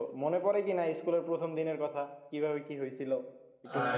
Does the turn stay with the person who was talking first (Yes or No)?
No